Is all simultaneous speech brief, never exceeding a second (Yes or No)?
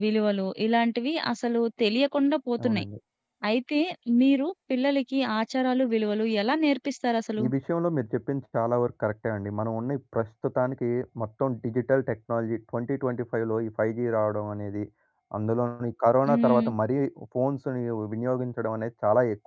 Yes